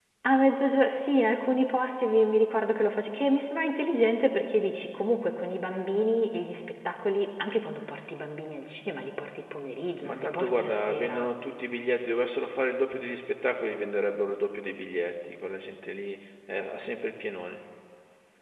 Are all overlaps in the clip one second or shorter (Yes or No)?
No